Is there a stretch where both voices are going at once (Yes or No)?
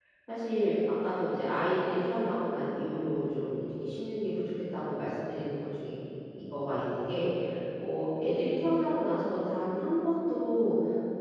No